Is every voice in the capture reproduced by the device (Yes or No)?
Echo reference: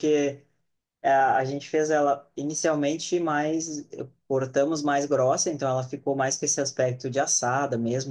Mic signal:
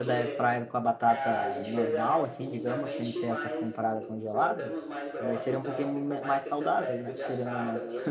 No